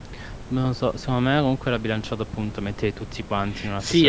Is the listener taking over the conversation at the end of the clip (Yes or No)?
Yes